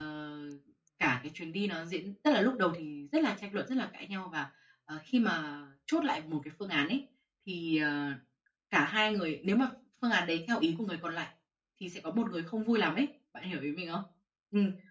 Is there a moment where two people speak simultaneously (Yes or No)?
No